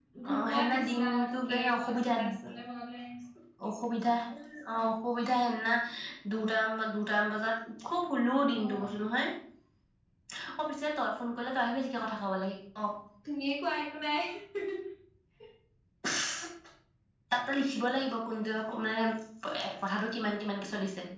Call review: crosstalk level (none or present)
present